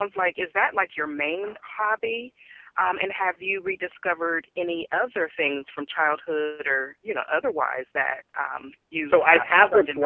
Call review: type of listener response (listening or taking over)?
taking over